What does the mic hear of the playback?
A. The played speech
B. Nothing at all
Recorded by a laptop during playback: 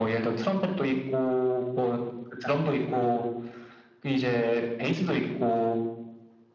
A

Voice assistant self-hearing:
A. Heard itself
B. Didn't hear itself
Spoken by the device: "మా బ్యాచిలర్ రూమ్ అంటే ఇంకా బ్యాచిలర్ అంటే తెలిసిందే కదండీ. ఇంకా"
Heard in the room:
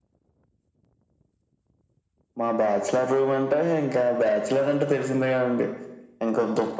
A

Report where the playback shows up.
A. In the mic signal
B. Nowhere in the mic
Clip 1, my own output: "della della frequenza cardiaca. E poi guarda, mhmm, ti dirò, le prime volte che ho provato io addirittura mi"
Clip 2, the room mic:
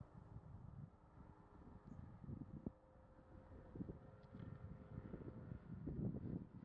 B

